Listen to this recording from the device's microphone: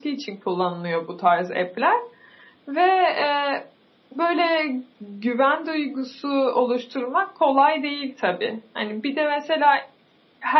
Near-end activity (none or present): none